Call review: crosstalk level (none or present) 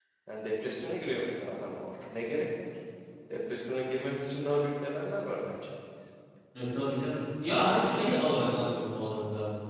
none